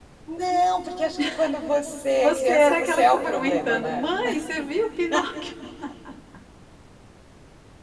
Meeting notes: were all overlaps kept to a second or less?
No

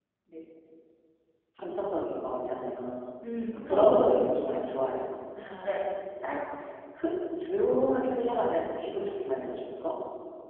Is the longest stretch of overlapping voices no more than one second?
Yes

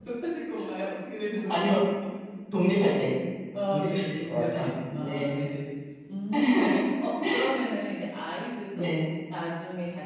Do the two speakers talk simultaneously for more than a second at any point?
Yes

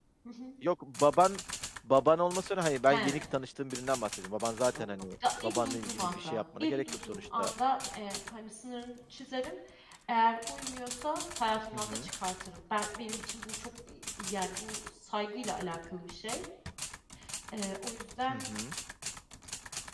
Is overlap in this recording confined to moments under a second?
No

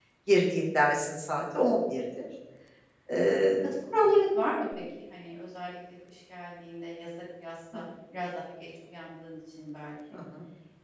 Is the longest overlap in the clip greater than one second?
No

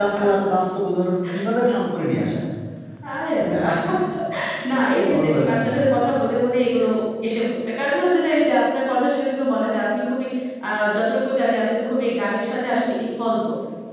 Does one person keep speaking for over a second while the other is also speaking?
Yes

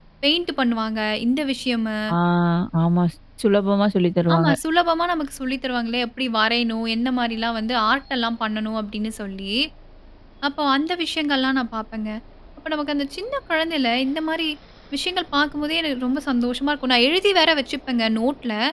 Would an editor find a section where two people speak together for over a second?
No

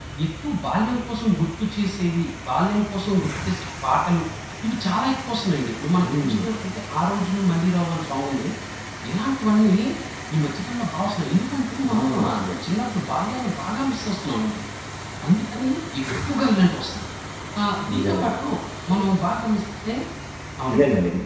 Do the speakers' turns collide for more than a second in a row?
No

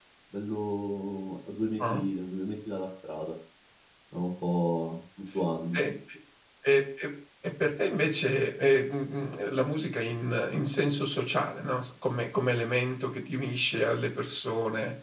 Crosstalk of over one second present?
No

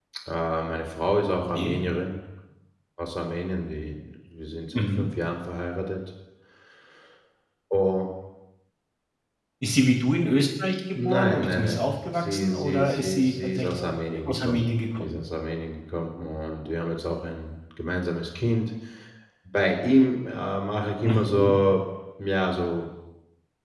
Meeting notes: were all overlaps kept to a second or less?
No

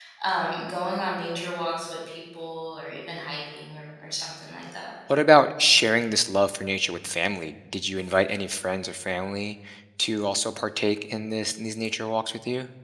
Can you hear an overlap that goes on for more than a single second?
No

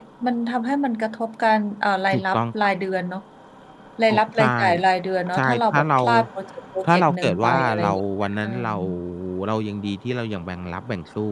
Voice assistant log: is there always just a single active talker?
No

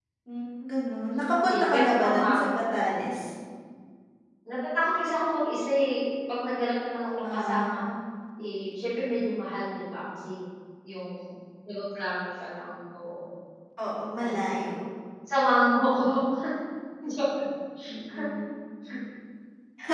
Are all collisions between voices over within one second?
No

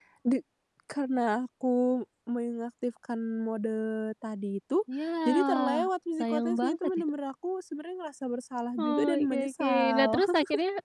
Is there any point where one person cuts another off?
Yes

